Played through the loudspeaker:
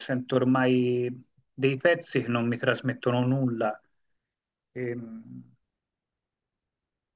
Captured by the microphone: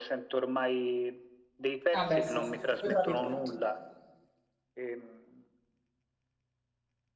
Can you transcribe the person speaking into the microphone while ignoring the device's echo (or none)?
Ah, beh, sì. Su YouTube trovi tutto.